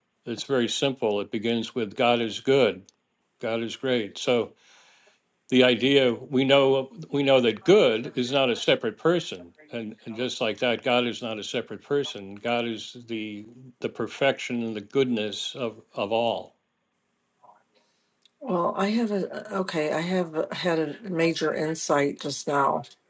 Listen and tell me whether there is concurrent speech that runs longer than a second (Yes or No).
No